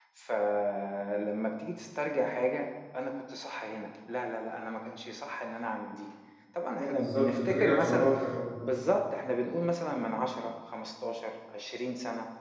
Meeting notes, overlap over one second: present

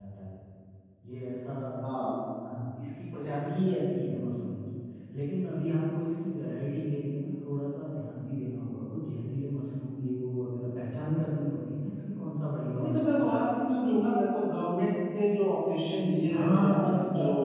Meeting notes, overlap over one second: none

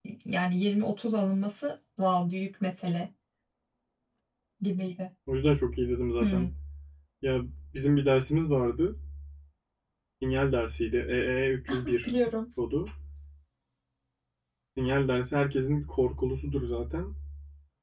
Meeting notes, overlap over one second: none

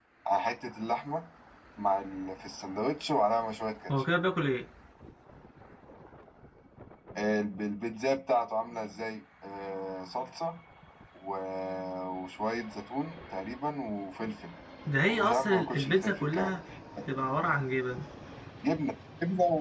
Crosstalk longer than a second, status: present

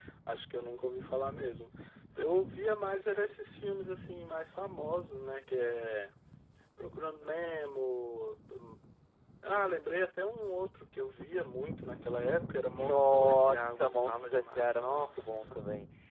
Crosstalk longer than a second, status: present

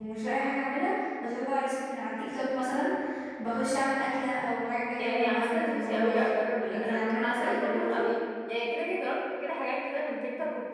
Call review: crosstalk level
present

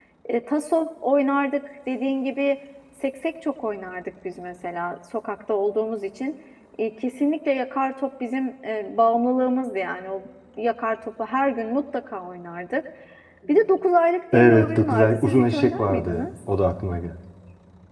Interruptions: present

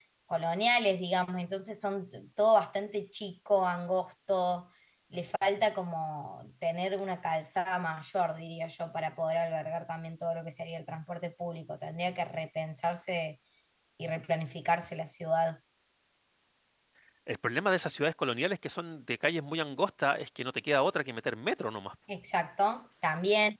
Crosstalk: none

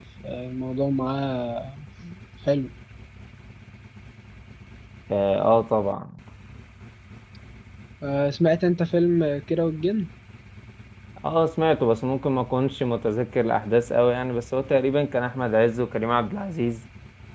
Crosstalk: none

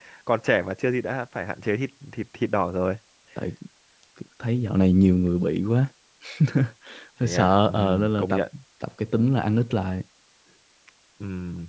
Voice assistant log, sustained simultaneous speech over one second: present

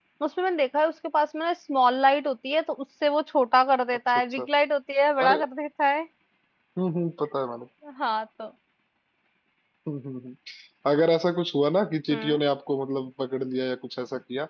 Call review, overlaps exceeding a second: none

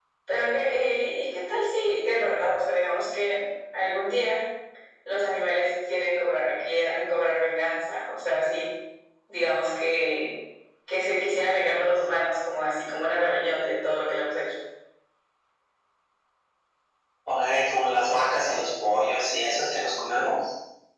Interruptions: none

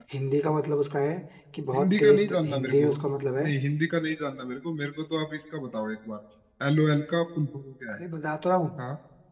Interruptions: present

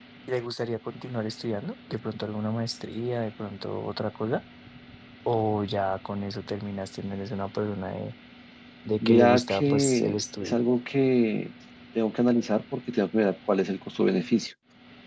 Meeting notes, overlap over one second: present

